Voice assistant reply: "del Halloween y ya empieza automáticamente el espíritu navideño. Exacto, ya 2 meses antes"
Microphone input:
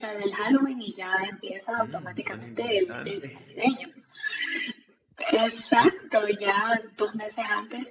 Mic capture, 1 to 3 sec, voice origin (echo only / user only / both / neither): both